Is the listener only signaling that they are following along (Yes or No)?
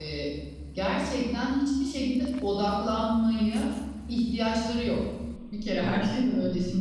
Yes